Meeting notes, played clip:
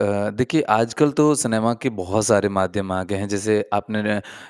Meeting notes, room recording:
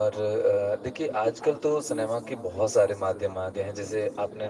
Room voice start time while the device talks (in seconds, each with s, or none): none